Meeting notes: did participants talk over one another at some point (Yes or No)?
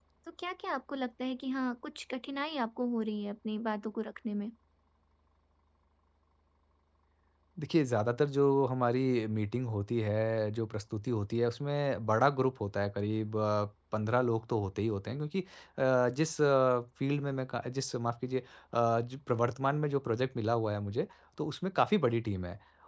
No